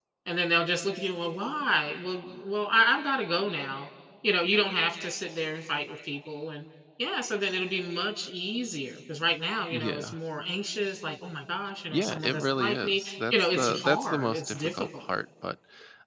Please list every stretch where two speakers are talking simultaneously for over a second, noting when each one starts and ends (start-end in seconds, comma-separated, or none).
11.9-15.1